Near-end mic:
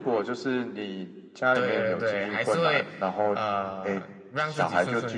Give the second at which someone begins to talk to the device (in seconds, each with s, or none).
1.5 s